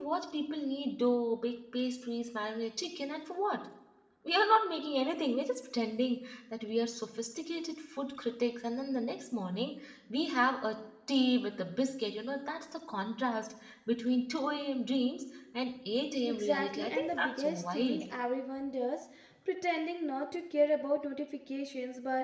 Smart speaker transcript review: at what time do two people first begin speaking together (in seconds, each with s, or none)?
16.3 s